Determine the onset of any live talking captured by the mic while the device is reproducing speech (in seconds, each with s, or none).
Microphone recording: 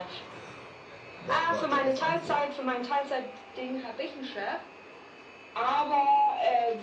1.2 s